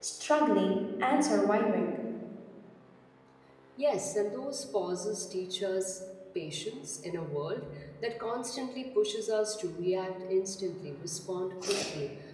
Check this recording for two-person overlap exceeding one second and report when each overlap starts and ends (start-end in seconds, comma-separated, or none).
none